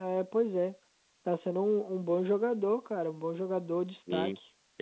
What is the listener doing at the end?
taking over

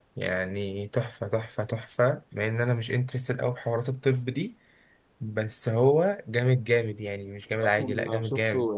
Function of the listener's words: taking over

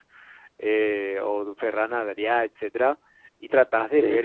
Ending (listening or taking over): listening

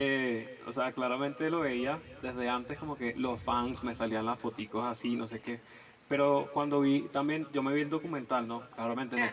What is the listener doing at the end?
listening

